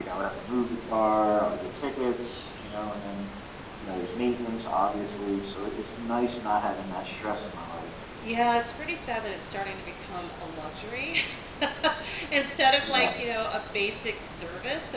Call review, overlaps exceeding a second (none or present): none